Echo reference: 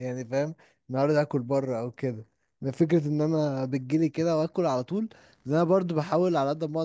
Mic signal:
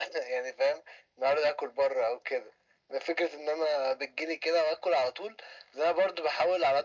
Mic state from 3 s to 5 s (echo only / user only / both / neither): echo only